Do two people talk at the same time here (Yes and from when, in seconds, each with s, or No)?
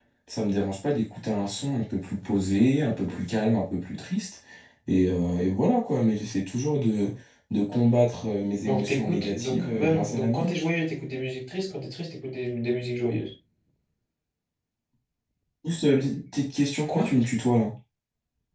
Yes, from 8.7 s